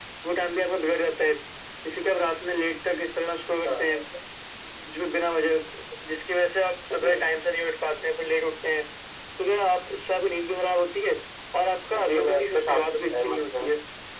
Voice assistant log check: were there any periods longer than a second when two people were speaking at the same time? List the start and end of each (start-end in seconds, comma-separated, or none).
12.1-13.7